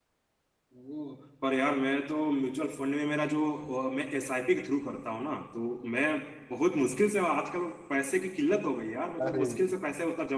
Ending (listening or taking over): listening